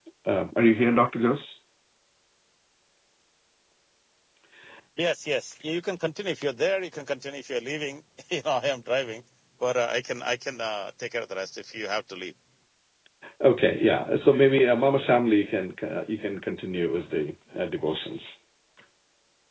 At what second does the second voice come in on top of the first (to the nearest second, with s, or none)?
none